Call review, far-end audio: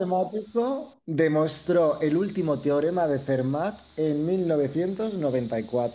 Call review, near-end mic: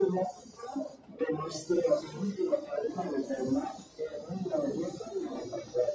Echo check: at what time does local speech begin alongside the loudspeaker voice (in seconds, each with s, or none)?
none